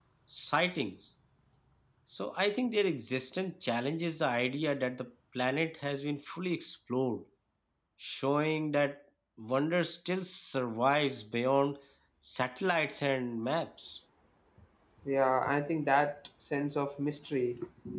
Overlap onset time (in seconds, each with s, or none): none